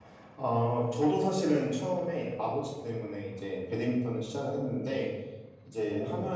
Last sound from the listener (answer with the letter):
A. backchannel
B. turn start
A